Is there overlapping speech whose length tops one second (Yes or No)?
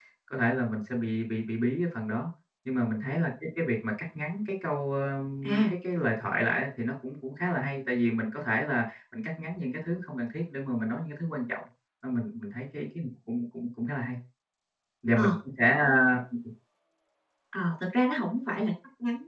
No